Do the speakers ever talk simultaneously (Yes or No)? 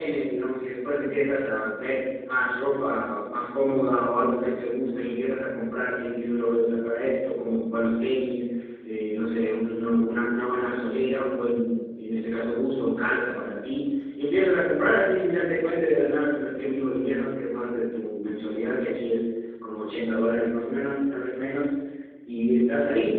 No